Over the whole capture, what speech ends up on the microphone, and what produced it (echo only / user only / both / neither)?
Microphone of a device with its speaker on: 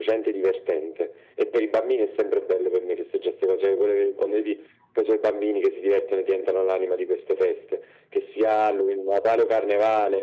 echo only